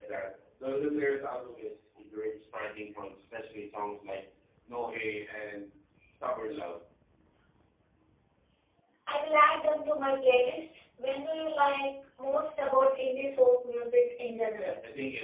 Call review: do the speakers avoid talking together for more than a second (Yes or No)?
Yes